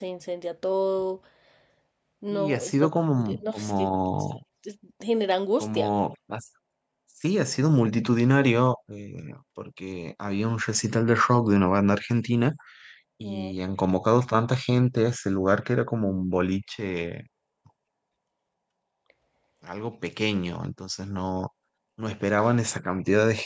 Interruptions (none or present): present